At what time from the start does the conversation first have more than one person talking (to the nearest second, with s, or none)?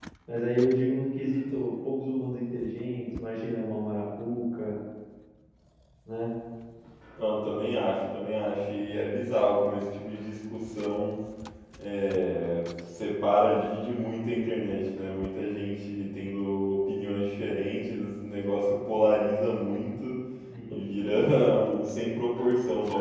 none